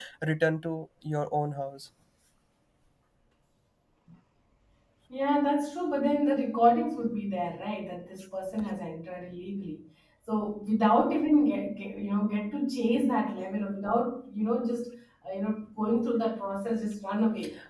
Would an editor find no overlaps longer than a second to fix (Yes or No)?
Yes